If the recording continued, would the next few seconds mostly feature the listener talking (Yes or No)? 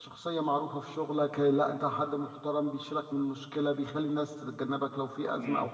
Yes